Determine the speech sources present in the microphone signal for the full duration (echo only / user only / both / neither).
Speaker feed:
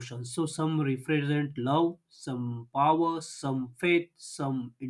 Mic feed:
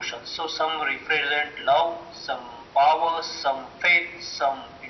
echo only